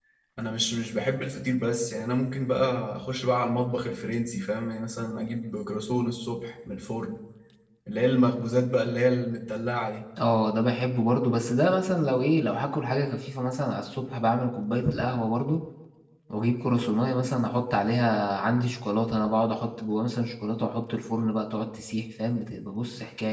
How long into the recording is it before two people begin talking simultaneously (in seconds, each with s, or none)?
none